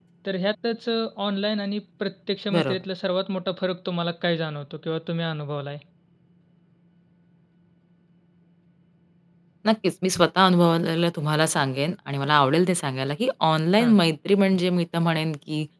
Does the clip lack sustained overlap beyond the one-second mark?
Yes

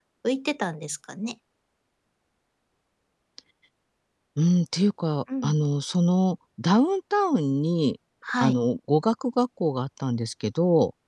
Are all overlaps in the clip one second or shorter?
Yes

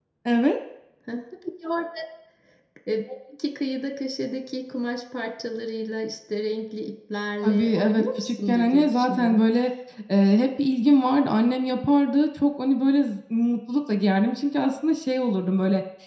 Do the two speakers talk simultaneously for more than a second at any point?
Yes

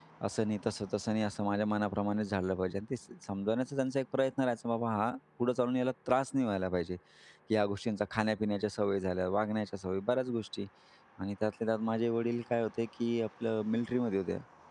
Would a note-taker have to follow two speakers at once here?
No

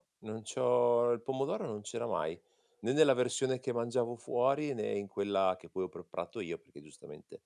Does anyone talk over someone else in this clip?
No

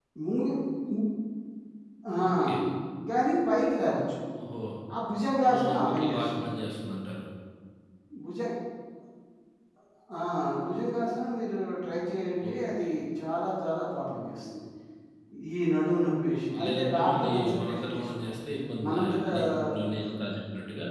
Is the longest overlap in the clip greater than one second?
Yes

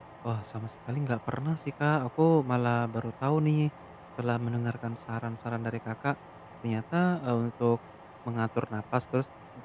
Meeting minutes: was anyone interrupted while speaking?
No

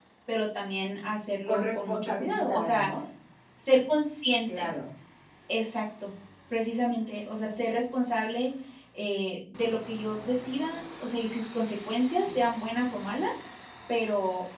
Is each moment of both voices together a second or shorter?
No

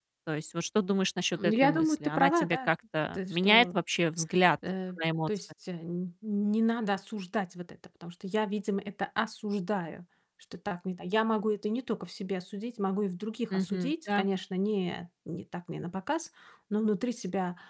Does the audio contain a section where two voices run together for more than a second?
Yes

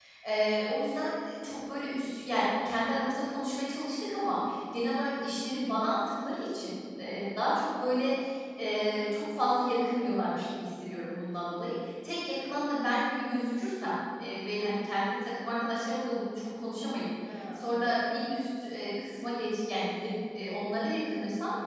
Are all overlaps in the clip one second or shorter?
Yes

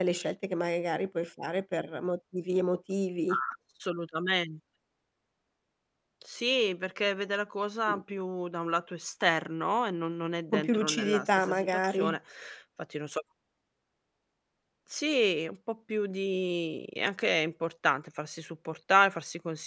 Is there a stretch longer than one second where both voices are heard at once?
Yes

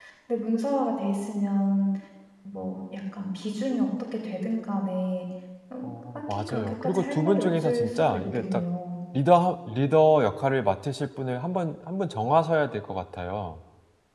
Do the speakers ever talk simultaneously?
Yes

